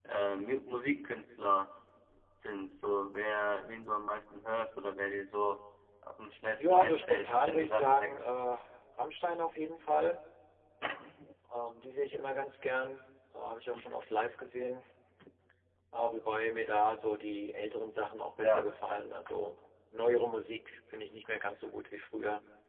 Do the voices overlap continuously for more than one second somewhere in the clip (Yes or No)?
Yes